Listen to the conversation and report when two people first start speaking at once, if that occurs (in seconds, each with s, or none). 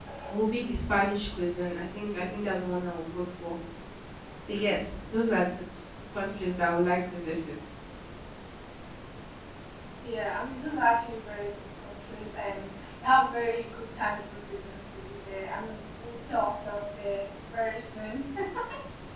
none